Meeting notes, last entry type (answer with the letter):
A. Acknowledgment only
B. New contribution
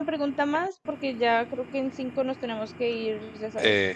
B